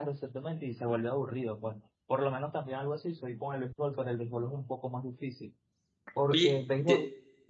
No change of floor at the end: No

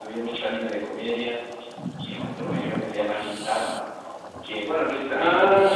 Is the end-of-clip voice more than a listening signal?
Yes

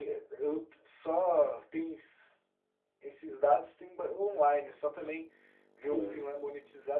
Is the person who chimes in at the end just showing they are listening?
Yes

